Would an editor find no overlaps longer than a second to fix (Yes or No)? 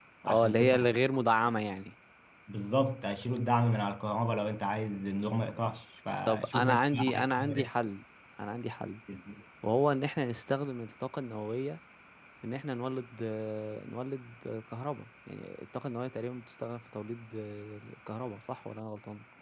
No